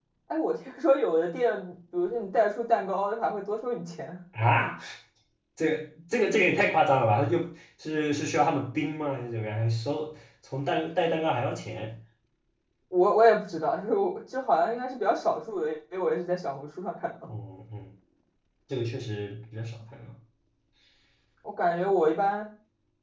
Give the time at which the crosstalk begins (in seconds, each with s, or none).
none